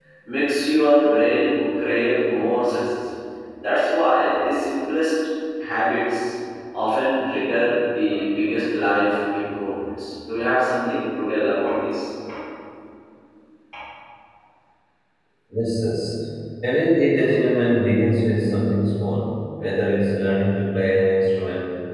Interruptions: none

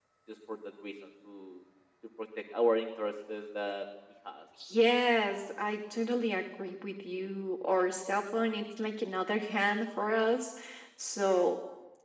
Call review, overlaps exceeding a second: none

